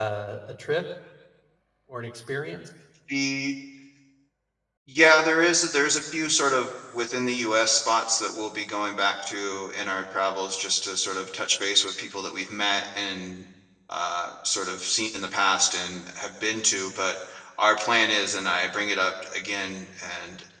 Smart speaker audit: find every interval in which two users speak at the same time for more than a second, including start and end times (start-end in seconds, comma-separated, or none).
none